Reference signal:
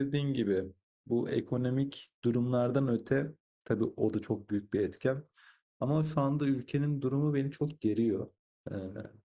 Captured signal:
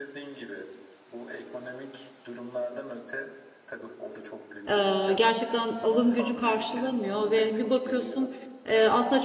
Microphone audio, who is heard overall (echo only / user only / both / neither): both